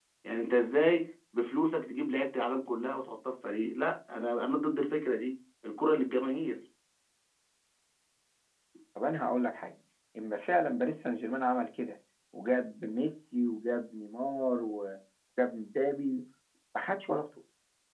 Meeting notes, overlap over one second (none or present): none